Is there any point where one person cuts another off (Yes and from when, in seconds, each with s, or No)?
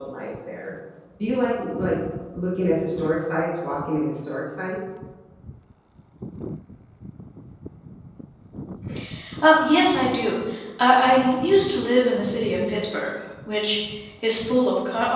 No